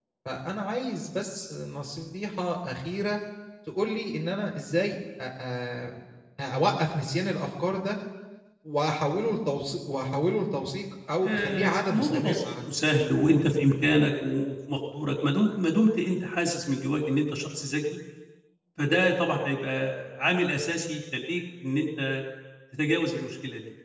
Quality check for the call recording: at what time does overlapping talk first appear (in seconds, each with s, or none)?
11.2 s